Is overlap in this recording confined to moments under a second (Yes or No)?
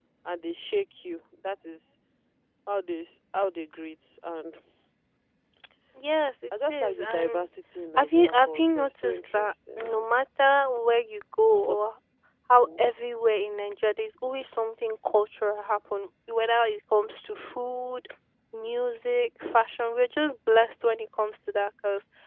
No